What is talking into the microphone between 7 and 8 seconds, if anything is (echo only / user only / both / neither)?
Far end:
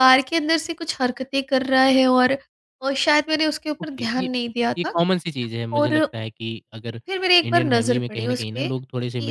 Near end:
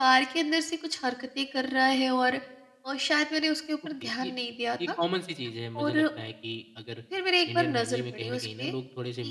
echo only